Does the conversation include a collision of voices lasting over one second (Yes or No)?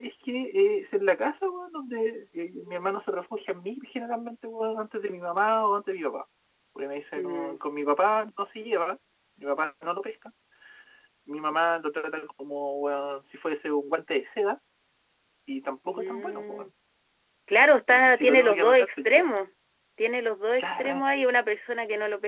Yes